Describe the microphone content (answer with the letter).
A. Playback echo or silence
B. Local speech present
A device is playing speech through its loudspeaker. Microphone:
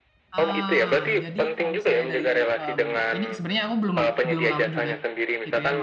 B